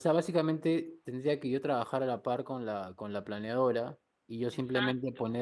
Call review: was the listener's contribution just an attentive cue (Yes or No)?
Yes